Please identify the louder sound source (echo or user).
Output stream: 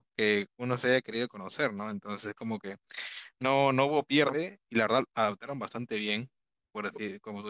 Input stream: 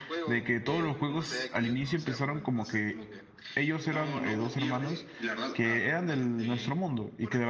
user